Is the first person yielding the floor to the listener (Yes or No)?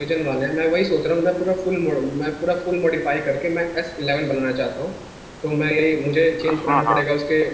No